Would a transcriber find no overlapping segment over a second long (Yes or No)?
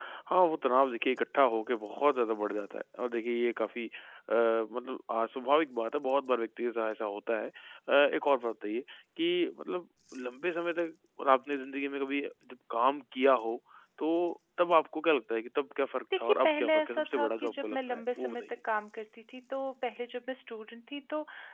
No